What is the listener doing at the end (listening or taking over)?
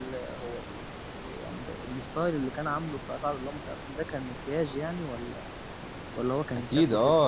taking over